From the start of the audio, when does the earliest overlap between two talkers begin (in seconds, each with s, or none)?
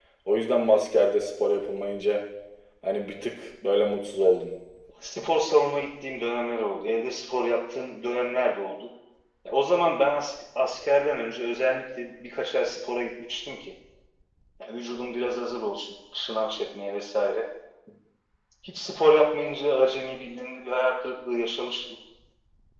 none